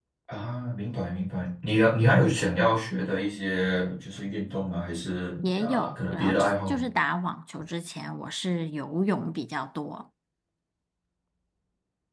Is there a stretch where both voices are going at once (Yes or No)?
Yes